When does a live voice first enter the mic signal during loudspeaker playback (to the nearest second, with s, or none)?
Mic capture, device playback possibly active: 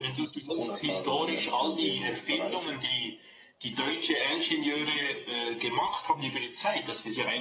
1 s